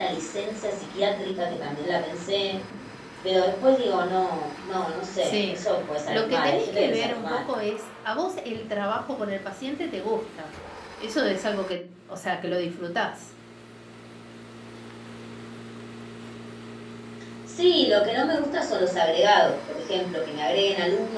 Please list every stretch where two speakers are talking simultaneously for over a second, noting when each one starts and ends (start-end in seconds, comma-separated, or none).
6.1-7.4